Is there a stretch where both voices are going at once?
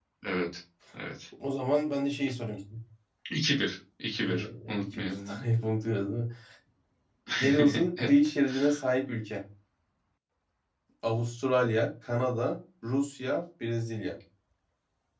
Yes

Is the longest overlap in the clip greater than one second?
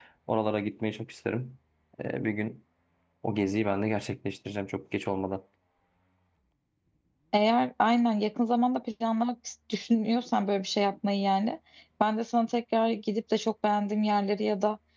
No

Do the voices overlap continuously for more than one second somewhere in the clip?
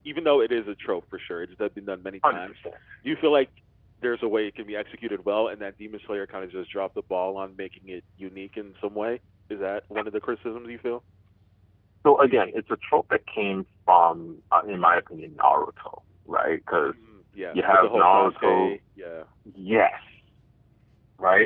Yes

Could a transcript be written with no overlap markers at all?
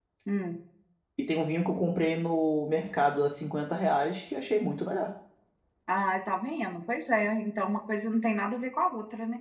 Yes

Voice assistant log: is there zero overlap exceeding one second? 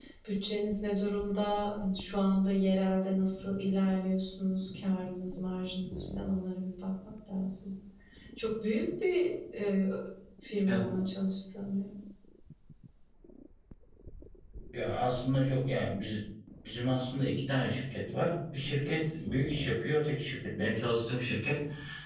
Yes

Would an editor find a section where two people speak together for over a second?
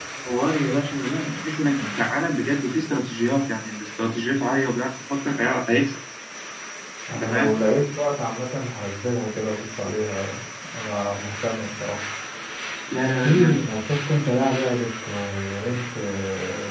No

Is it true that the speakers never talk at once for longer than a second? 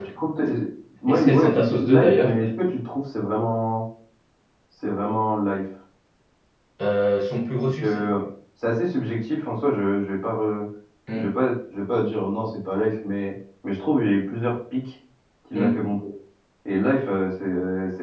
No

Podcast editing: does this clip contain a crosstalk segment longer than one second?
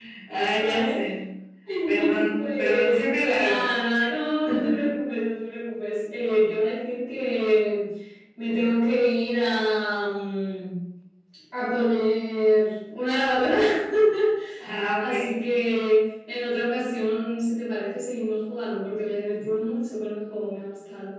Yes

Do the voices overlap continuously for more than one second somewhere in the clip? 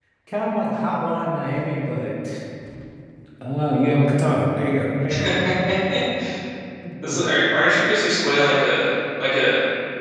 No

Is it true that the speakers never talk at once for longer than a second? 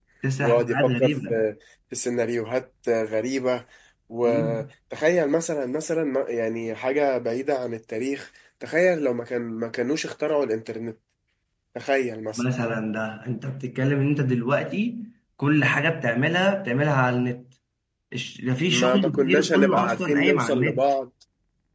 No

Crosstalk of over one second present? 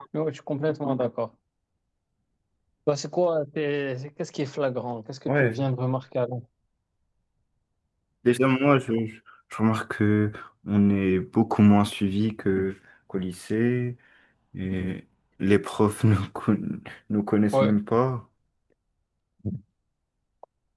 No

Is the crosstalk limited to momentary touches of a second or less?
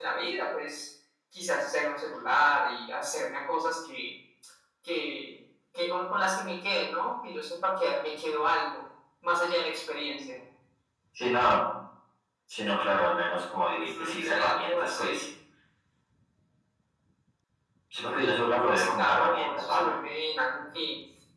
No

